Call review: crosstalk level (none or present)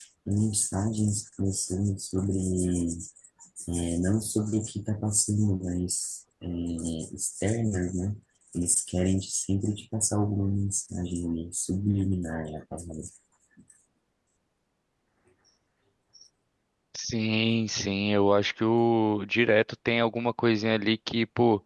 none